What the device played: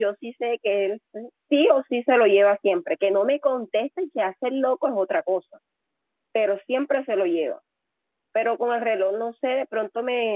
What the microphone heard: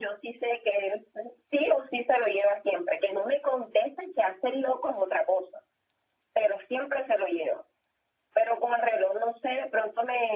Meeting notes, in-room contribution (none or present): none